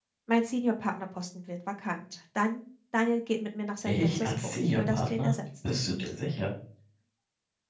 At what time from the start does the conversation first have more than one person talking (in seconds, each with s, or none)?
3.8 s